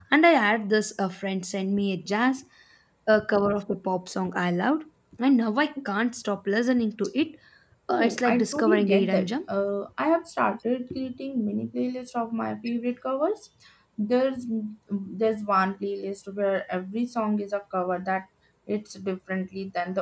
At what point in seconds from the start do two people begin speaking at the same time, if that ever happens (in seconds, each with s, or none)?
7.9 s